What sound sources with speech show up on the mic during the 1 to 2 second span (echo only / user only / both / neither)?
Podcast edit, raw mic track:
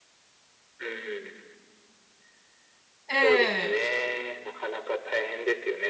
echo only